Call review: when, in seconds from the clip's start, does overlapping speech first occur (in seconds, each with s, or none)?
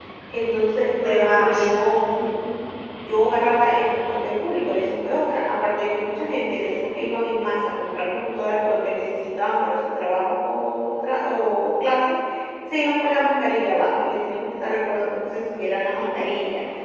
1.0 s